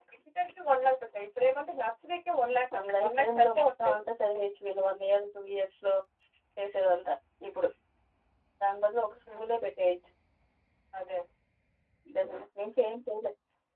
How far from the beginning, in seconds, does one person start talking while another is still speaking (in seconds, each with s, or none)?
2.7 s